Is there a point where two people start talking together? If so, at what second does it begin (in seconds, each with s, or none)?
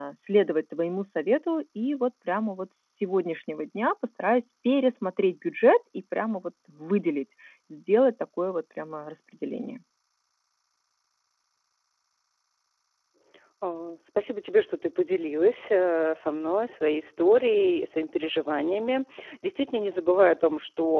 none